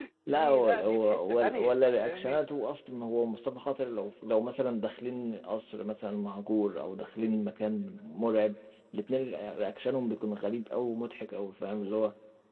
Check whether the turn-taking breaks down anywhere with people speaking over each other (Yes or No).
Yes